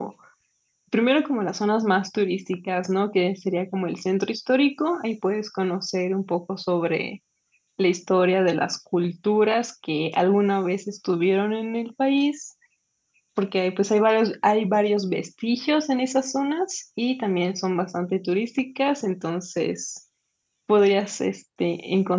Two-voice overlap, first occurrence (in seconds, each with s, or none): none